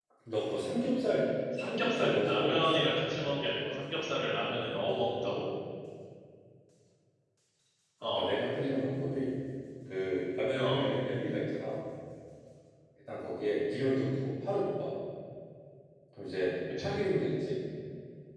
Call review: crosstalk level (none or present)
present